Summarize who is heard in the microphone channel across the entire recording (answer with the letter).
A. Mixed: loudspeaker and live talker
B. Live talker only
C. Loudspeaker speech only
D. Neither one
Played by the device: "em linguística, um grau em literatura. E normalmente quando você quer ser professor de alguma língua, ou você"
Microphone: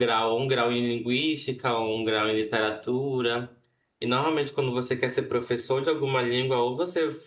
C